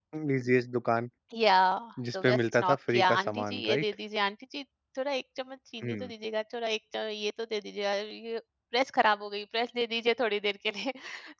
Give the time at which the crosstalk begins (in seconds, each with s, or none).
2.1 s